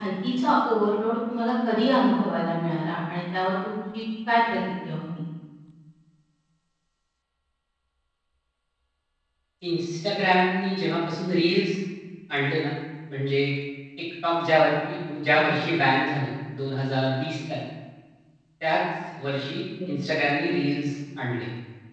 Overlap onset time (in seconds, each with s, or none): none